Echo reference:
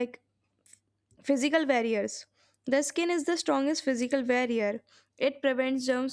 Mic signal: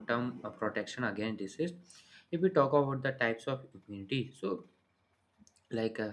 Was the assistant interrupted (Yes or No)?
Yes